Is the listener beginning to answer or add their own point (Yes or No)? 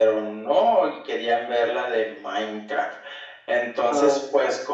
No